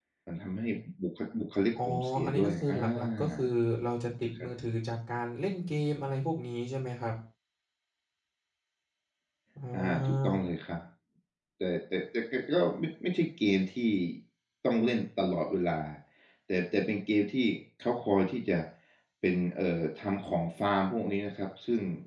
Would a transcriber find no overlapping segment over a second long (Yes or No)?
No